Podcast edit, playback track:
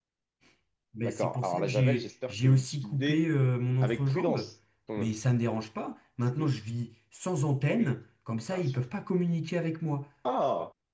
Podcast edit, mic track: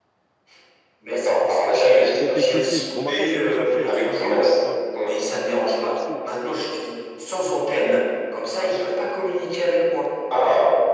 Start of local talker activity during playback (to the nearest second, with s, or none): 2 s